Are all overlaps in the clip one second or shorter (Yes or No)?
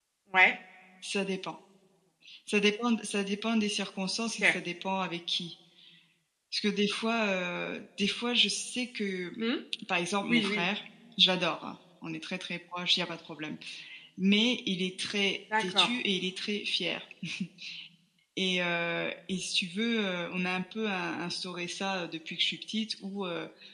Yes